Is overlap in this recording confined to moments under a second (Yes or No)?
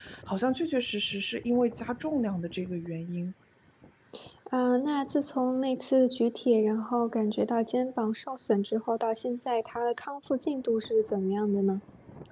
Yes